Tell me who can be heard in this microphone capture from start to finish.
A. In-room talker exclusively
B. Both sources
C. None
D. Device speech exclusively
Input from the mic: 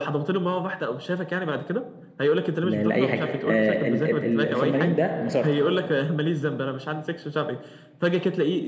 B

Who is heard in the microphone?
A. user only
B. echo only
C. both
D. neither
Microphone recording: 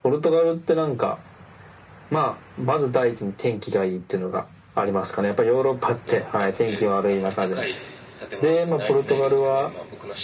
C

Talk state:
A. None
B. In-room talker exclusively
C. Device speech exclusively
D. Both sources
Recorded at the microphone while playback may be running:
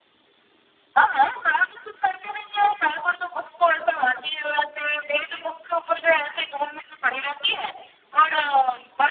C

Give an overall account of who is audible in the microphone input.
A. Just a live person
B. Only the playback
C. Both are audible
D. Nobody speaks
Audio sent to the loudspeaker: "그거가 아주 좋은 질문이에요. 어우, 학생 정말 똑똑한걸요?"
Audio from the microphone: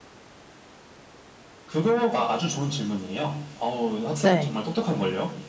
C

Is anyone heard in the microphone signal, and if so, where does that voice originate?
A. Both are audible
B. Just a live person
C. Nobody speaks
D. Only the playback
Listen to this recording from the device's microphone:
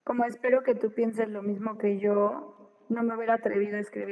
D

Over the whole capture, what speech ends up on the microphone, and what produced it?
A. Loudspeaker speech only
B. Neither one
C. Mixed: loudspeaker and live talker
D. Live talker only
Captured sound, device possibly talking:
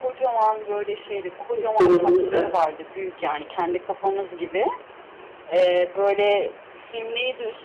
C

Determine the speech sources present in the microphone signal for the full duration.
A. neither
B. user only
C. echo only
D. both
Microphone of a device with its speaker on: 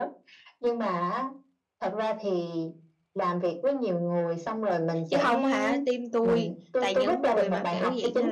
D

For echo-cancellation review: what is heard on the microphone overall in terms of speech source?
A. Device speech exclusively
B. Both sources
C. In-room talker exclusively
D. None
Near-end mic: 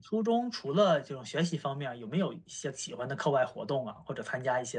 C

